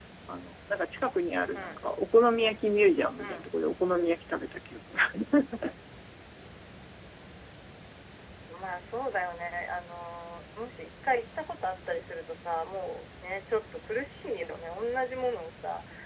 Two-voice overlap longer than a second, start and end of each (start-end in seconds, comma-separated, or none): none